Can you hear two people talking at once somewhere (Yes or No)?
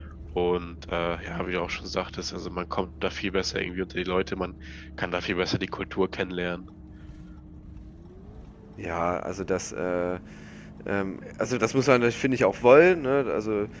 No